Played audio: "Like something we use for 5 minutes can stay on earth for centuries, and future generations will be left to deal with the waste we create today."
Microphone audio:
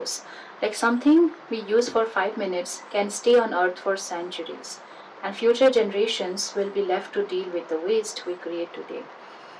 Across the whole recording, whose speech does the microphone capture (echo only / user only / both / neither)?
echo only